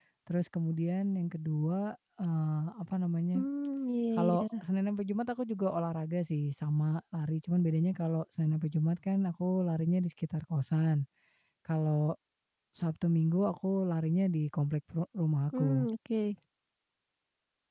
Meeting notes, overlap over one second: none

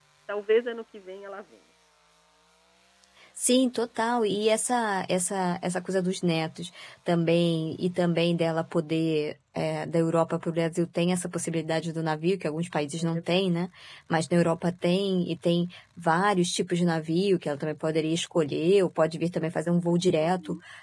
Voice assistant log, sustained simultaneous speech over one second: none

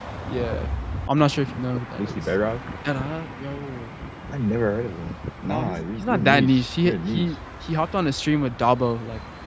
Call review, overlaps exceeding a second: present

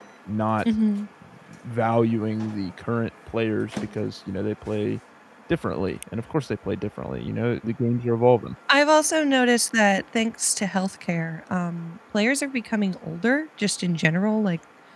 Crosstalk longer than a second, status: none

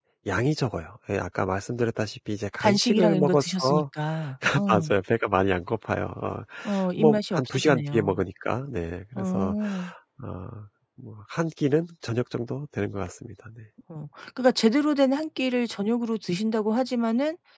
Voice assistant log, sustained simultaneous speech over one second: present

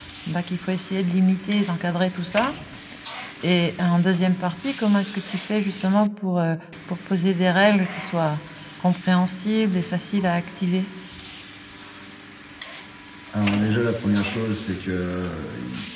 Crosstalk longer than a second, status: none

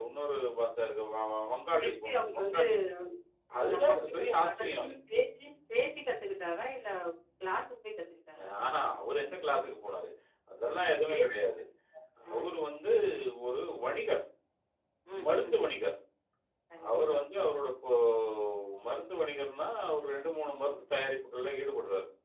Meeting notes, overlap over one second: present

